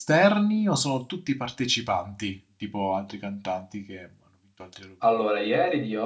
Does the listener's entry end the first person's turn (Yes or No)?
Yes